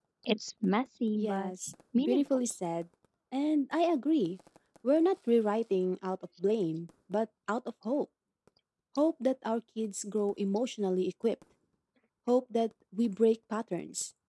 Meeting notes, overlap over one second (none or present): none